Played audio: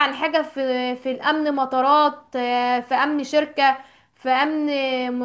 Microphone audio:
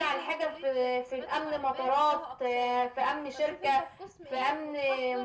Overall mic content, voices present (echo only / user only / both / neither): both